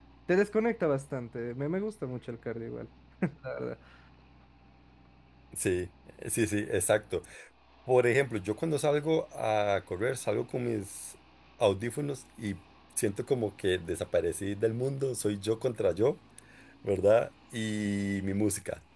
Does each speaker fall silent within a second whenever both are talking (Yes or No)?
Yes